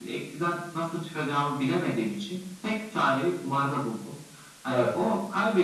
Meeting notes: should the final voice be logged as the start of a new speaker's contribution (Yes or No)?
No